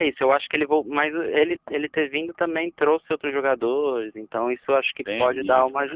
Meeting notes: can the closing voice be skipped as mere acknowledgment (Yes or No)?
No